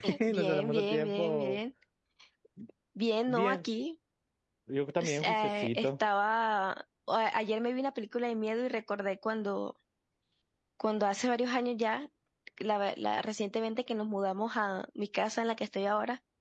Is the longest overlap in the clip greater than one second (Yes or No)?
Yes